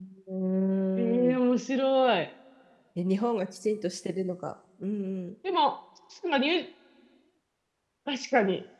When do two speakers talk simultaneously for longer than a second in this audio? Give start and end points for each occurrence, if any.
none

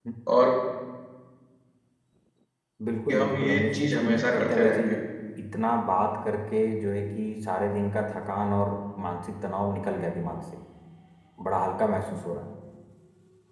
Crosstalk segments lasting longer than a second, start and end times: 3.1-4.9

